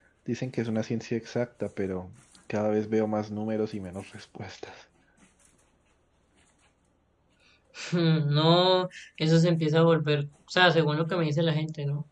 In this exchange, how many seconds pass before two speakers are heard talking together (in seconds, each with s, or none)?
none